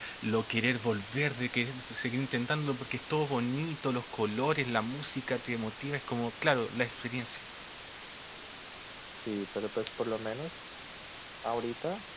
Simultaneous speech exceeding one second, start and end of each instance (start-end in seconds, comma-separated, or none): none